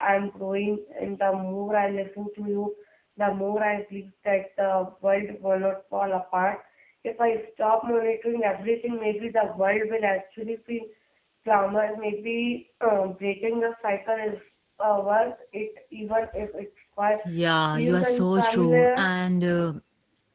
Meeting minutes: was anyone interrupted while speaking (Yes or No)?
Yes